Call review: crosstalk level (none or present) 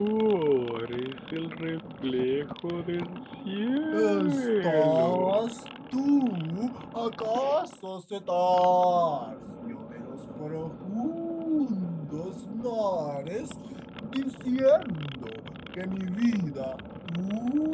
present